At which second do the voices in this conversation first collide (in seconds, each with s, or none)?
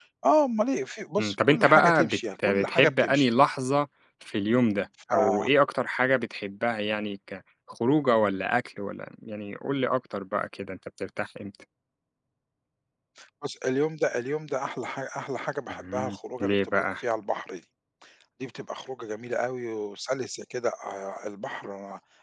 1.2 s